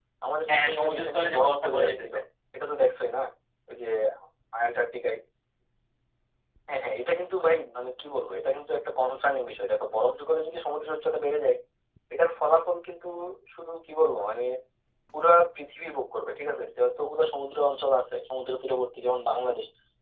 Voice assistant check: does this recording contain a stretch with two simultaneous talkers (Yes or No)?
Yes